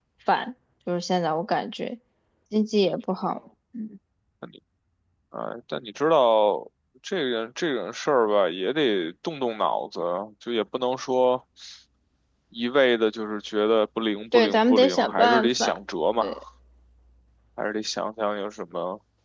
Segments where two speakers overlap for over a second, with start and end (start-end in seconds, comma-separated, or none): 14.3-15.8